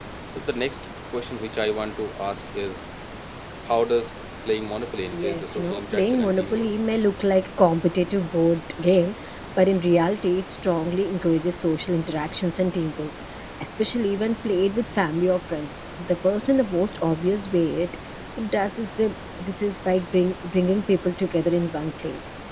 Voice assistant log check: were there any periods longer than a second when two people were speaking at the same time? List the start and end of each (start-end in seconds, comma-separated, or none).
5.1-6.7